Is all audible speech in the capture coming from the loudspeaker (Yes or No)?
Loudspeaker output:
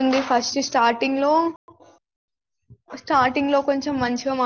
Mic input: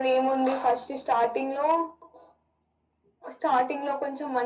Yes